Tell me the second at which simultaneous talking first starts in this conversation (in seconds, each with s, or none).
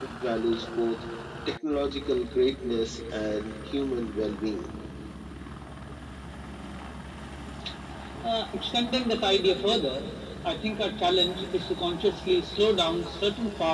none